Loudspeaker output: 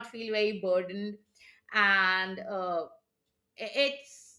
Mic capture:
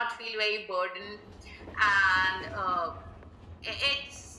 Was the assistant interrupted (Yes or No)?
No